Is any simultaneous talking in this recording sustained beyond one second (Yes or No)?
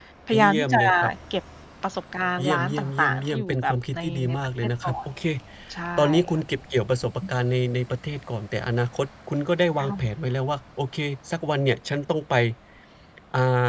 Yes